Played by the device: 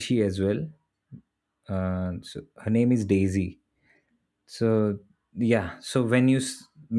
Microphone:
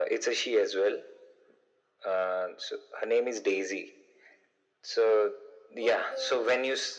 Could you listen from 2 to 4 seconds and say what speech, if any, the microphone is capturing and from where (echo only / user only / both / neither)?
echo only